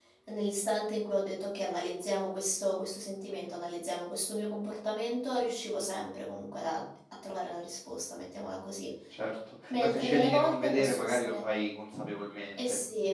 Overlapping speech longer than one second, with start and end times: 9.7-11.4

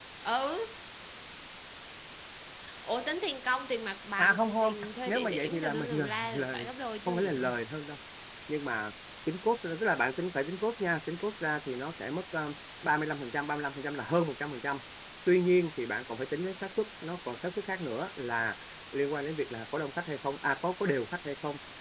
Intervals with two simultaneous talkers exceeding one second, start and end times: 4.2-6.6

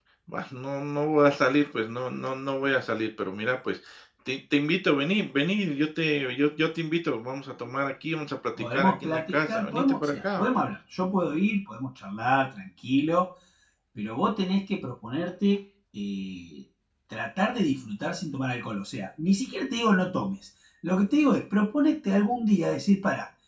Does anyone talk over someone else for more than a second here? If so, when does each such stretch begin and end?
8.6-10.4

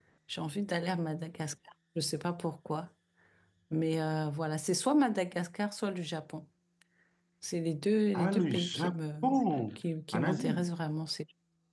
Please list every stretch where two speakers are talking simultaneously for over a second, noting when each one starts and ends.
8.1-9.3

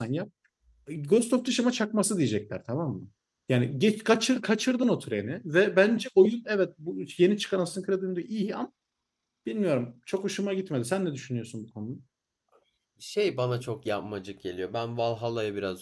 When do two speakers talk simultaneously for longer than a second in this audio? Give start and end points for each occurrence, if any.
none

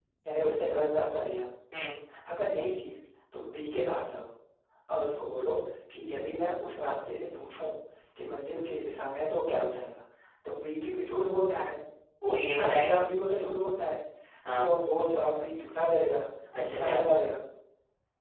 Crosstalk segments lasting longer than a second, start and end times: none

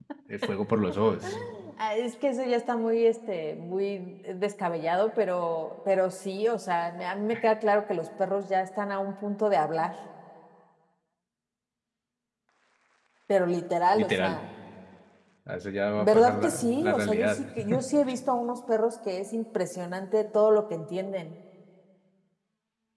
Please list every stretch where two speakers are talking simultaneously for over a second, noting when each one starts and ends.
16.0-17.4

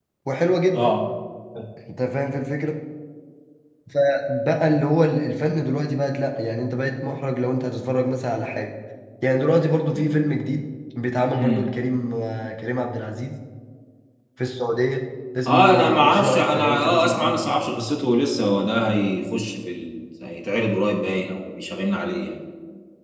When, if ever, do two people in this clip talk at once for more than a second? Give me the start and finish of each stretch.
15.5-17.4

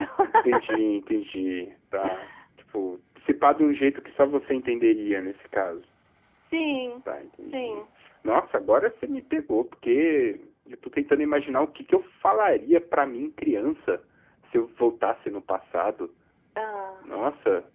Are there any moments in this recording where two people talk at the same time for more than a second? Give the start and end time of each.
none

